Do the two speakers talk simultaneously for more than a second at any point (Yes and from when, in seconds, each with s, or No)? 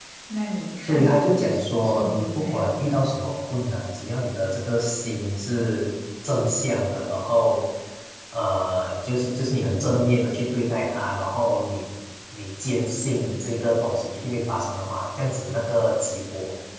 Yes, from 0.9 s